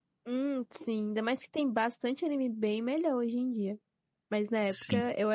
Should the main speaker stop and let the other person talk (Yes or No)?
No